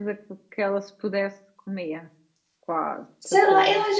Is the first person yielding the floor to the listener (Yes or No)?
Yes